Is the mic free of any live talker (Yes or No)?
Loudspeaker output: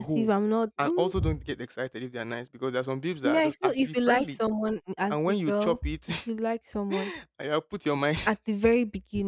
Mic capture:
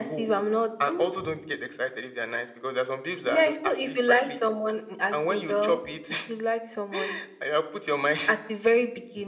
Yes